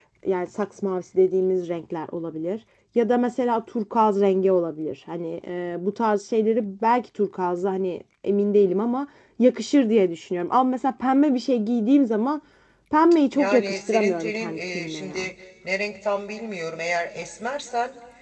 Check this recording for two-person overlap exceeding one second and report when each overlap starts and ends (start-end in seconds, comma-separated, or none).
13.3-15.3